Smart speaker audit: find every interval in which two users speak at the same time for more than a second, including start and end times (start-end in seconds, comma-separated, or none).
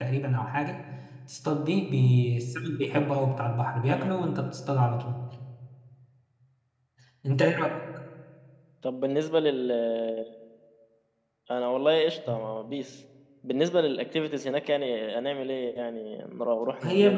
none